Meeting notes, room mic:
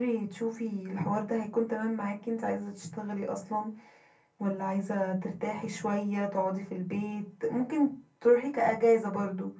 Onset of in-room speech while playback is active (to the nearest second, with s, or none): none